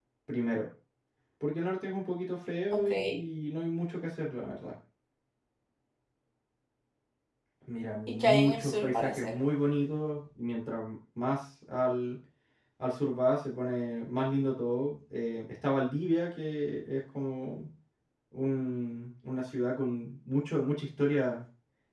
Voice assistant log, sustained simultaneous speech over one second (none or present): present